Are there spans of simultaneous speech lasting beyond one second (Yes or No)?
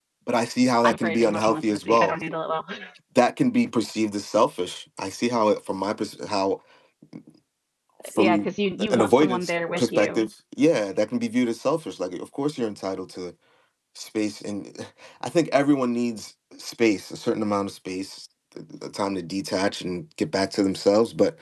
Yes